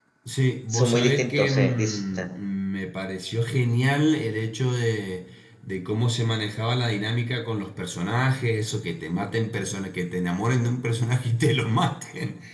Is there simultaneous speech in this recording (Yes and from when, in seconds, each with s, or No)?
Yes, from 0.7 s